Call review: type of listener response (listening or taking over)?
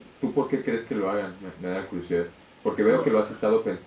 listening